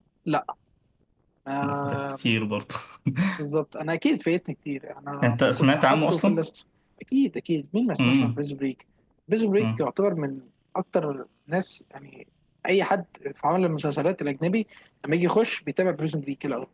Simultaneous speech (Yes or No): Yes